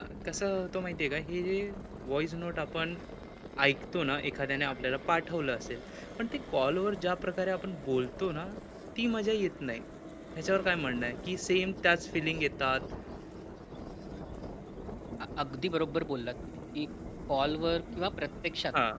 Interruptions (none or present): none